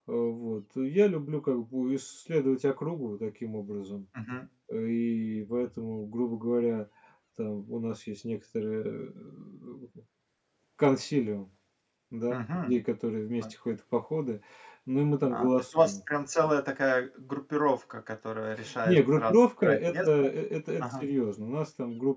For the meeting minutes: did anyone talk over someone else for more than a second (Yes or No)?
Yes